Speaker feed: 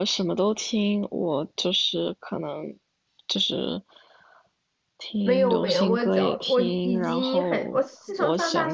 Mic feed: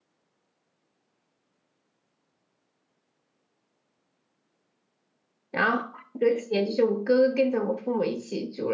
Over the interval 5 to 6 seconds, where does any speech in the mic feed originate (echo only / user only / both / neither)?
user only